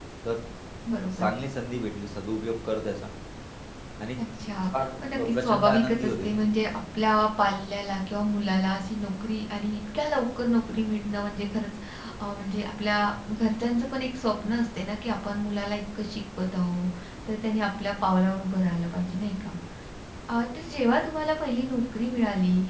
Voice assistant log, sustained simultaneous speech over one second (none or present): present